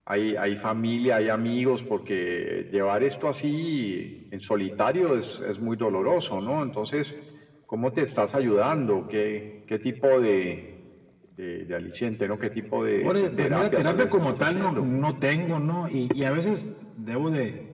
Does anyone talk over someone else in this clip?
Yes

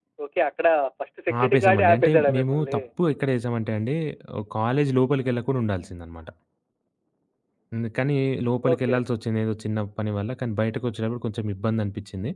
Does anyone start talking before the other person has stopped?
Yes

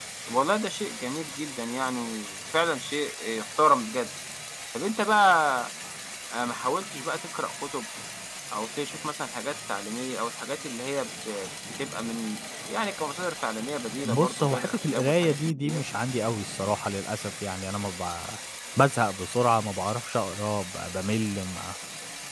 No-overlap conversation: No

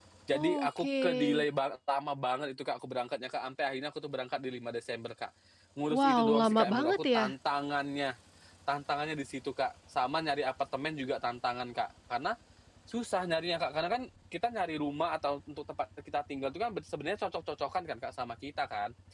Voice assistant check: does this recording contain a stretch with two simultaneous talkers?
Yes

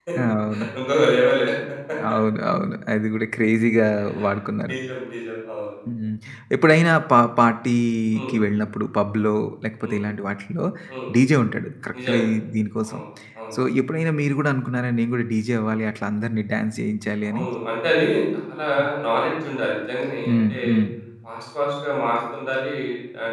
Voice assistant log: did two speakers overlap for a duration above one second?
No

